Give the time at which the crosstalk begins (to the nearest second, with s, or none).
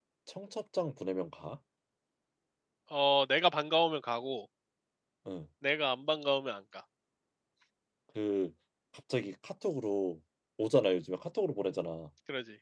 none